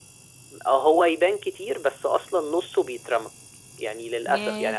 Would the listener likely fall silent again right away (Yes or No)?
Yes